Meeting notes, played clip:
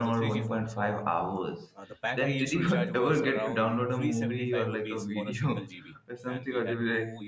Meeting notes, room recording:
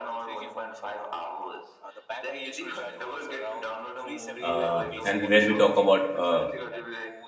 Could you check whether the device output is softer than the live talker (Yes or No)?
Yes